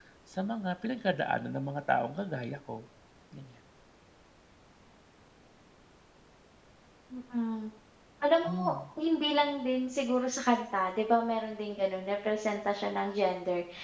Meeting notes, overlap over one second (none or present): none